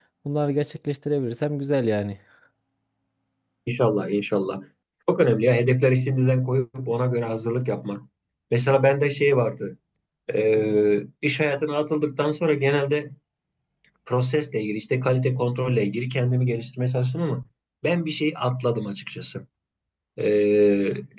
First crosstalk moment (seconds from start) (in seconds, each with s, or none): none